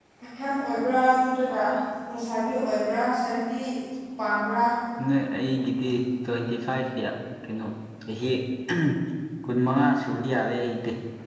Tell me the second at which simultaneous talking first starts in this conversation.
none

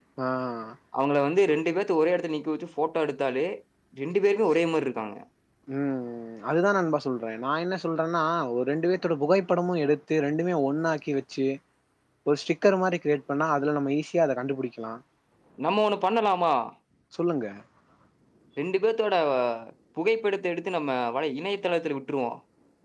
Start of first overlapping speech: none

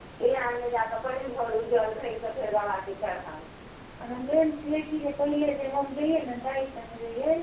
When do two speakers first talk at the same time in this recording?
none

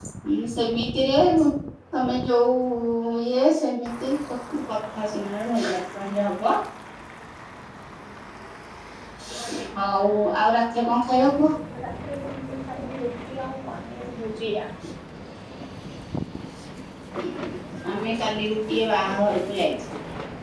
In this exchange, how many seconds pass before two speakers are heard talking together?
none

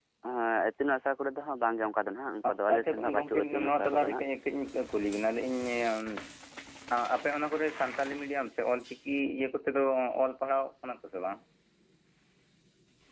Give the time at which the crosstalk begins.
3 s

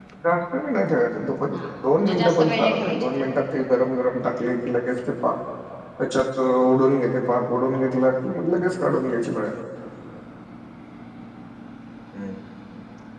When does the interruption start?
2 s

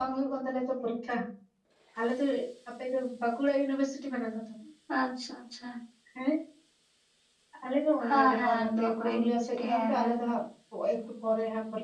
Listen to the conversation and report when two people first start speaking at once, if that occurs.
8 s

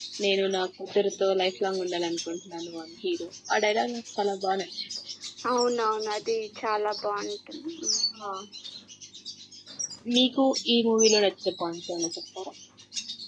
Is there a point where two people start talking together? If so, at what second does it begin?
none

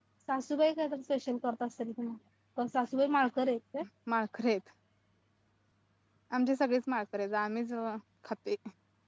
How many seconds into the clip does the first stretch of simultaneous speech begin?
none

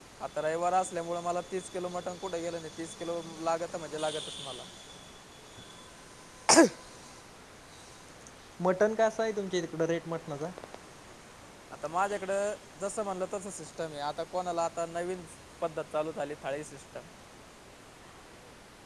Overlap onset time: none

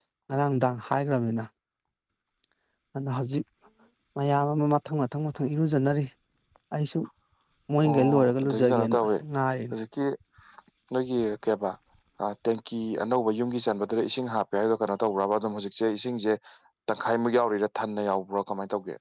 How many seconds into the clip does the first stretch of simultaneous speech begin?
8 s

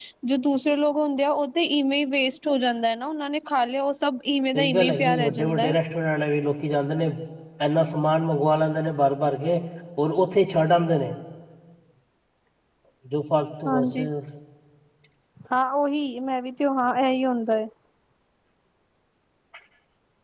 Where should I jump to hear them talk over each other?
5 s

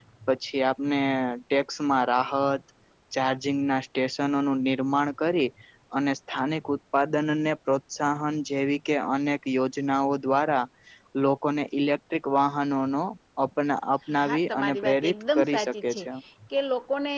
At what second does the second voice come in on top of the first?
14 s

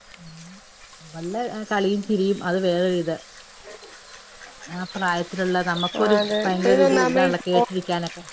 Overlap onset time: 6 s

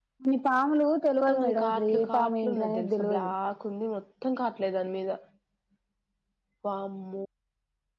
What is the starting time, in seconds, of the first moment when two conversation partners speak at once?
1 s

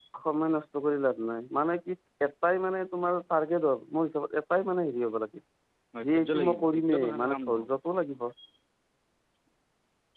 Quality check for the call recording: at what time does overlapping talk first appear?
6 s

